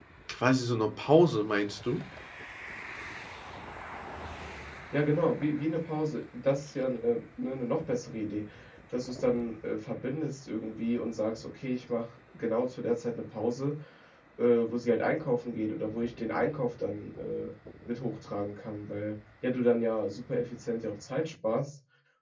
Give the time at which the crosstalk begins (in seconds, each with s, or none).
none